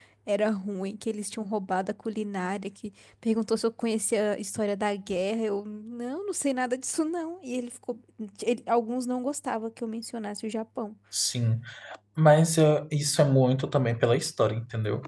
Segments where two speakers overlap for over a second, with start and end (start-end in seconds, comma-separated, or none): none